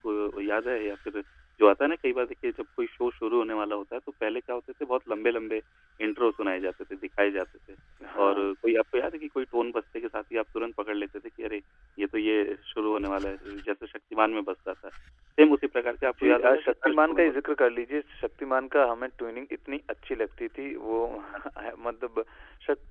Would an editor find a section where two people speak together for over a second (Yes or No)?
Yes